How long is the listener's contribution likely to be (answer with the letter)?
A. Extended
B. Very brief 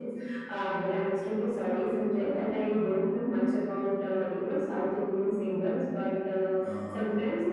B